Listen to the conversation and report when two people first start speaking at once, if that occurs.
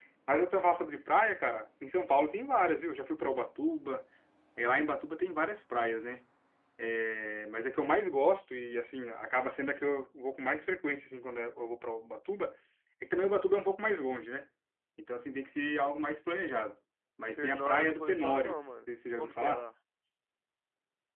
17 s

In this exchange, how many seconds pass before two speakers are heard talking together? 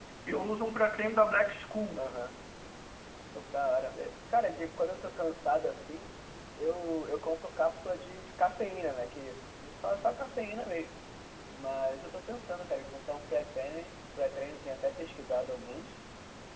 none

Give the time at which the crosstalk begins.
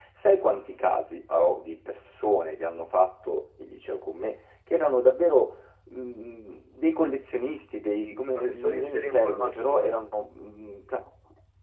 8 s

